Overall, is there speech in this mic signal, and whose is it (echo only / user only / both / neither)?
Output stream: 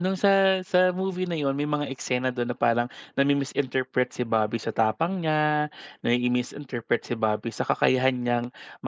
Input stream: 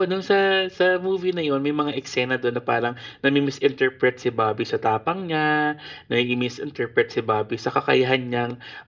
echo only